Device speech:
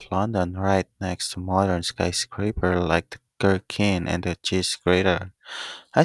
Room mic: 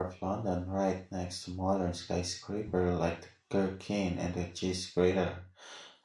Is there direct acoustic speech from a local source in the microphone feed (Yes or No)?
No